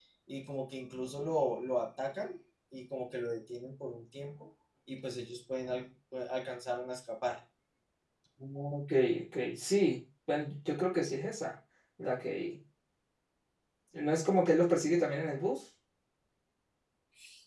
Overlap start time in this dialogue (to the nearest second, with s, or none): none